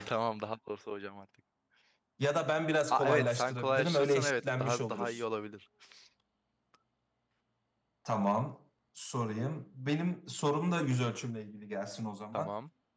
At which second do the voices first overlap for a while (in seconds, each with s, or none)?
2.9 s